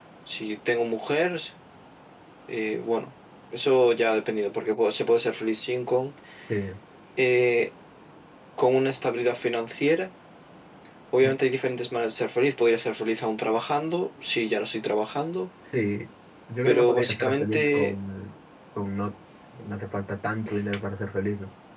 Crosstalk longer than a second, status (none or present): present